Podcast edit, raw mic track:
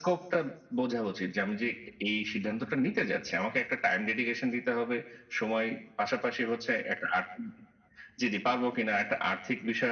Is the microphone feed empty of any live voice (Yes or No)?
Yes